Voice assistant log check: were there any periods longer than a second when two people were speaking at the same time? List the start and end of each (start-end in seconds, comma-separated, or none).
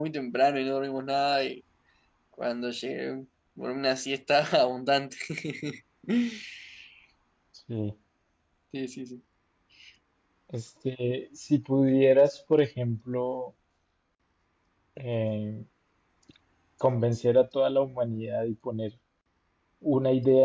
none